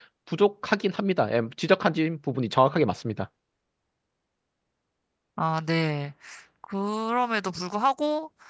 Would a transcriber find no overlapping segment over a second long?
Yes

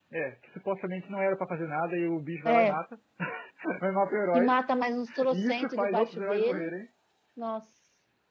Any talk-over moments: Yes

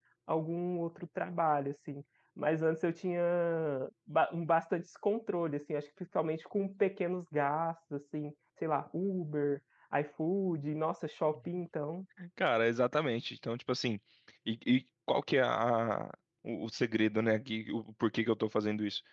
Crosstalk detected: No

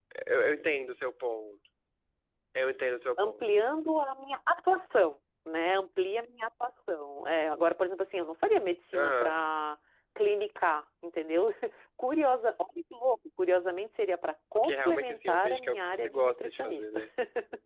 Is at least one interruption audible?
Yes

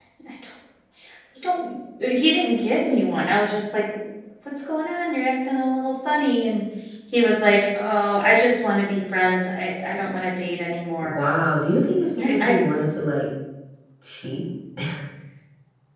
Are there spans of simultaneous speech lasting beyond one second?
No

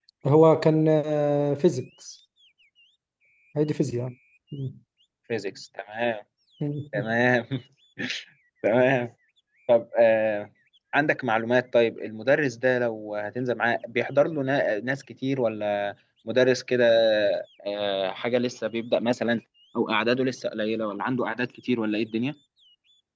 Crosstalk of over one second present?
No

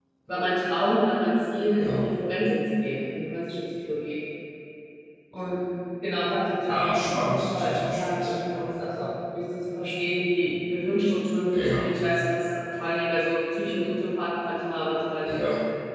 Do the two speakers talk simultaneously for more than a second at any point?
Yes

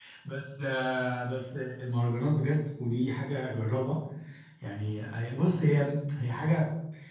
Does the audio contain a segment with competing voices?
No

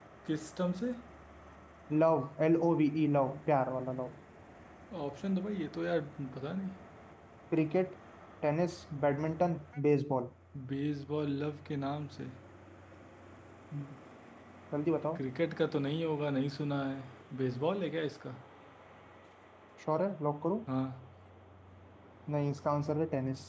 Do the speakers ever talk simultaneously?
No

